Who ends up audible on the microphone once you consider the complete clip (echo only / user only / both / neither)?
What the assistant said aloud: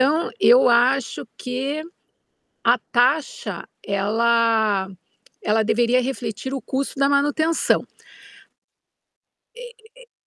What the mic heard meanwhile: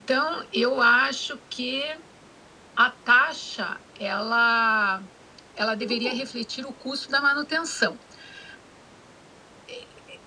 both